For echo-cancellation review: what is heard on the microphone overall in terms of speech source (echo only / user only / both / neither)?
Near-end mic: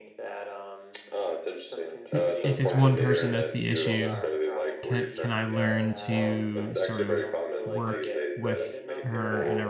both